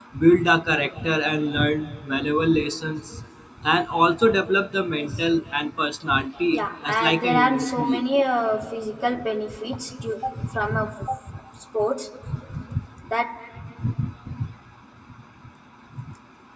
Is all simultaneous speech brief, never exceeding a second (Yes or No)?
No